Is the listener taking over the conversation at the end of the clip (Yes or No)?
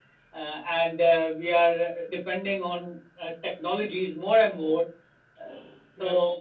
No